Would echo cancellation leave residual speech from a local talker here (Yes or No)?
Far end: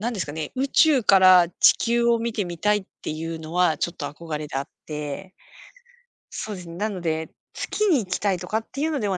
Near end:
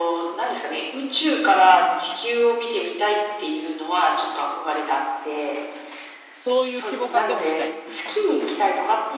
Yes